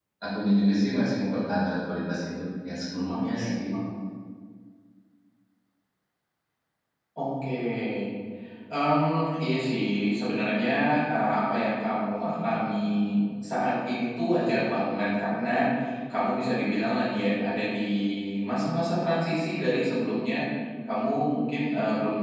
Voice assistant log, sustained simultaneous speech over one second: none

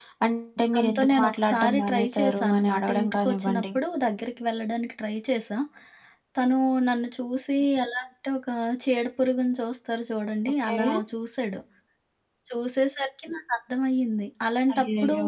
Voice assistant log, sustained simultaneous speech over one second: present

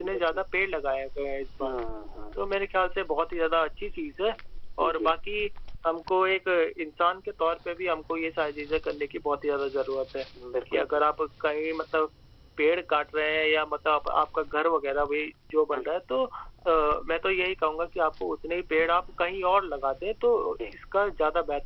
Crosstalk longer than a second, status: none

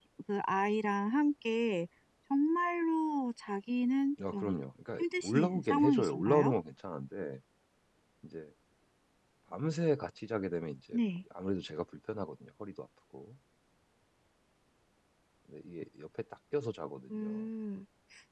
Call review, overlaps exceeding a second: present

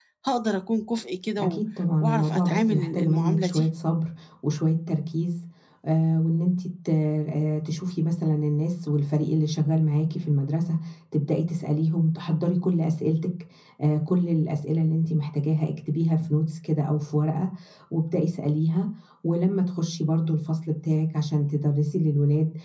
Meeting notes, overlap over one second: present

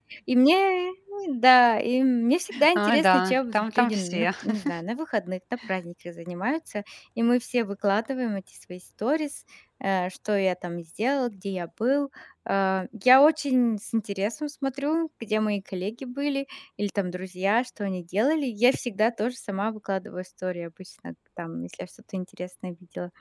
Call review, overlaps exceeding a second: present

